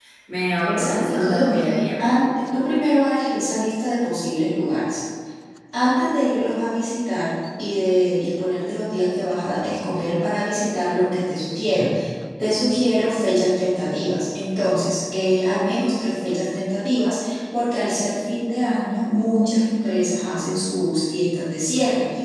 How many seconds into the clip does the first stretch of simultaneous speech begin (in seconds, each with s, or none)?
0.7 s